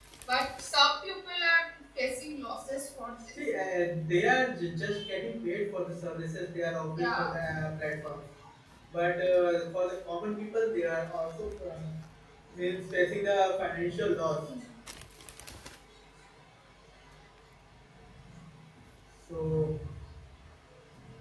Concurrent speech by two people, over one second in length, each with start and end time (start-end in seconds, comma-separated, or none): none